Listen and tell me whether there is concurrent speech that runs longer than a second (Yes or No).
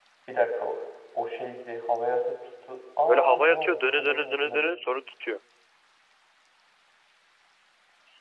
Yes